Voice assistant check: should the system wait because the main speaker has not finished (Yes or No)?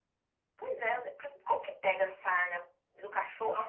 No